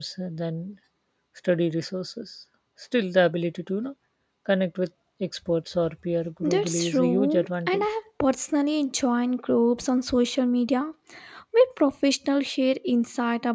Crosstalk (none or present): present